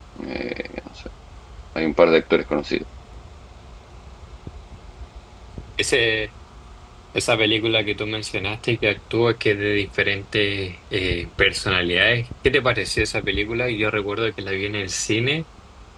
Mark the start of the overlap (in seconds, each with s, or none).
none